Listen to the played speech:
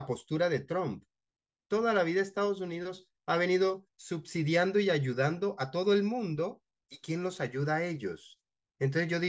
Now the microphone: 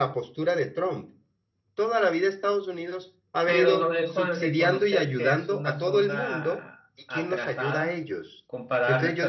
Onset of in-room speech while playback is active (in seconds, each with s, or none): 3.4 s